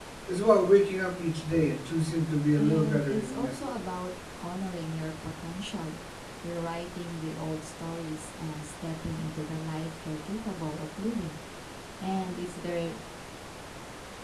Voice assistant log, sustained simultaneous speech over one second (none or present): present